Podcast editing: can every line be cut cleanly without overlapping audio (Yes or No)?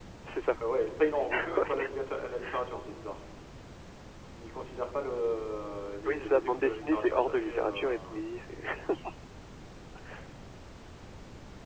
No